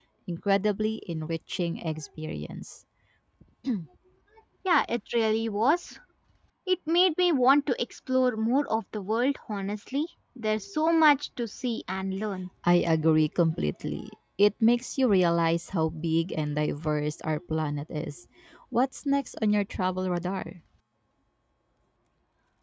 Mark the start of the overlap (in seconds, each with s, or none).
none